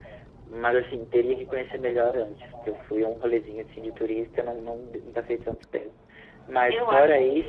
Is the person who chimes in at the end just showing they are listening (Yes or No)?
No